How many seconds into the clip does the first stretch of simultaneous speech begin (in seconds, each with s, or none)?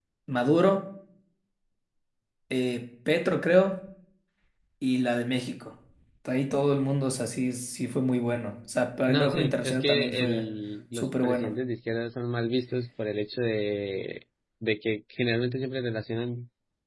9.1 s